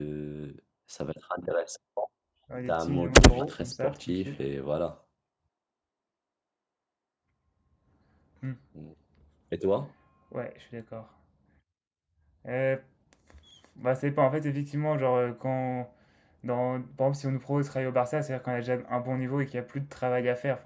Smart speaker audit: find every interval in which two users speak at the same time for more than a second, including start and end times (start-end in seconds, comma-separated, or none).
2.7-4.4